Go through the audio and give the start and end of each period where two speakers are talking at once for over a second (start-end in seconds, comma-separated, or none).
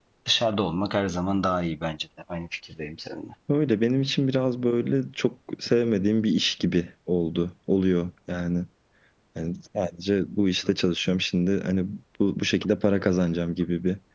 none